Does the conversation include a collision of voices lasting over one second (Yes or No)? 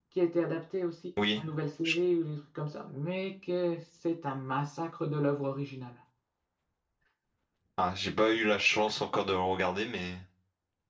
No